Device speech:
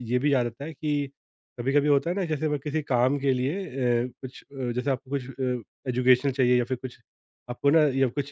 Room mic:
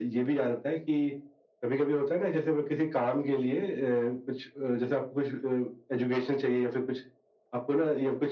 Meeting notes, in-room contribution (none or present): none